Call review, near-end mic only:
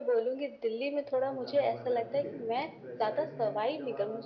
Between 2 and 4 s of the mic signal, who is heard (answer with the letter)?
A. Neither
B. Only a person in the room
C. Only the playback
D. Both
D